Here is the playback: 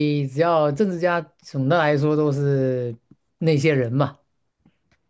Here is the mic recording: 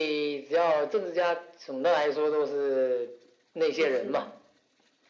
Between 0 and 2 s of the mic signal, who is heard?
echo only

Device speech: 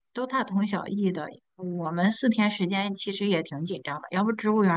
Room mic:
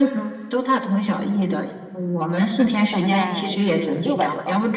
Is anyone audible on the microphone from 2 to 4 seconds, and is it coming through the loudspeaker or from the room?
both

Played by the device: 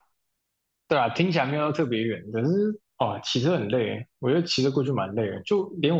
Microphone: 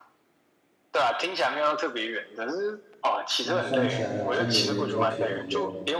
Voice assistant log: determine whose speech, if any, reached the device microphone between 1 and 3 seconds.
echo only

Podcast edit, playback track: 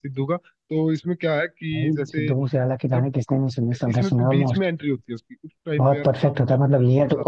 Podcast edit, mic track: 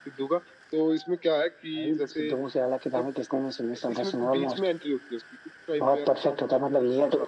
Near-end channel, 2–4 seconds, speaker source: echo only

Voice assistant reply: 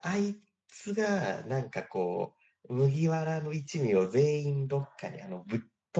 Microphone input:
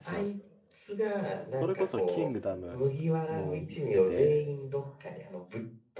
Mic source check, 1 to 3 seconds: both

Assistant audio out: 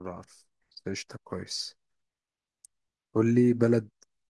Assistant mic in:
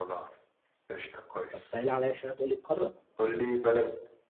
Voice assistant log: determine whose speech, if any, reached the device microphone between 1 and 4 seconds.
both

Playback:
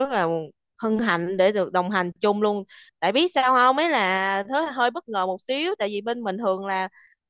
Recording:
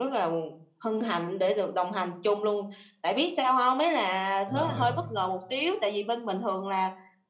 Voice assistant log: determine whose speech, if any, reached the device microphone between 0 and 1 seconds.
echo only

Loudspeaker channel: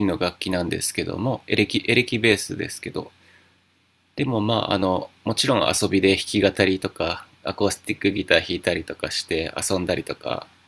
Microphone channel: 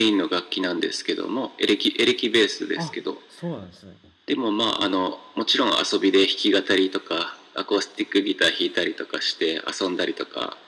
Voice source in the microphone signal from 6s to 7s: echo only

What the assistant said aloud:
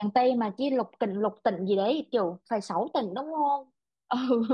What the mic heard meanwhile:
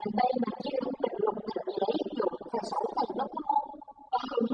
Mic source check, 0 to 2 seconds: echo only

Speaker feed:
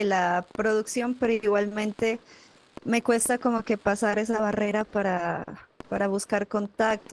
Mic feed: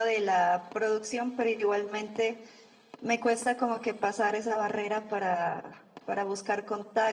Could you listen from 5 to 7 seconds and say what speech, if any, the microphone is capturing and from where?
echo only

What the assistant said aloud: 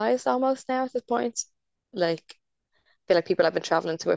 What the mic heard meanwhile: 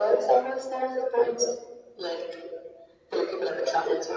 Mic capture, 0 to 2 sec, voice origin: echo only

